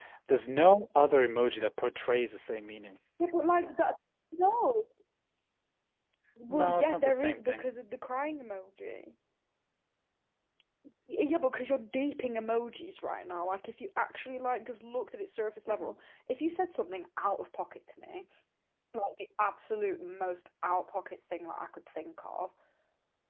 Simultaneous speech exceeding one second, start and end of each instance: 6.5-7.7

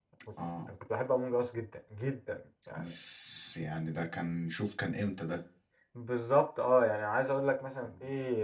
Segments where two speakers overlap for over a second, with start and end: none

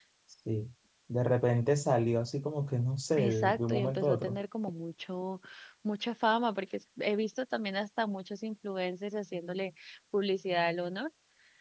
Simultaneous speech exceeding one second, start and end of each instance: 3.2-4.4

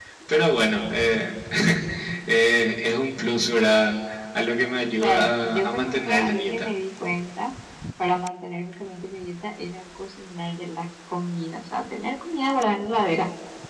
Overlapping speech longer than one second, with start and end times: 5.0-6.7

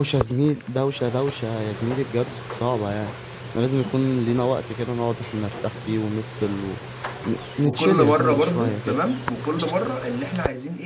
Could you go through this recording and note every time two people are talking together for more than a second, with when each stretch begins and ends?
7.6-9.0

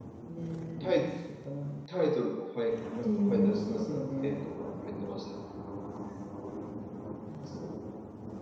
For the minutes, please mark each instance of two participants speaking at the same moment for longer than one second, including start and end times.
3.0-4.4

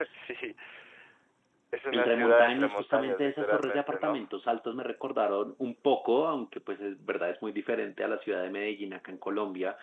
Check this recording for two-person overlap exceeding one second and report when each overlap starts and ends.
1.9-4.3

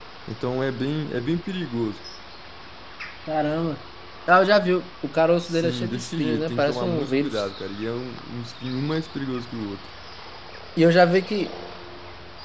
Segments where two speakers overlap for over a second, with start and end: 5.5-7.4

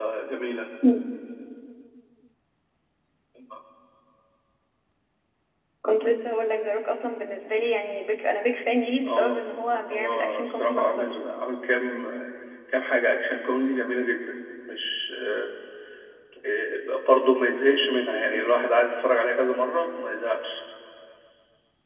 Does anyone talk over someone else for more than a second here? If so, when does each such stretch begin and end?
9.9-11.2

